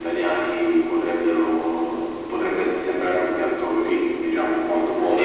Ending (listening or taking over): taking over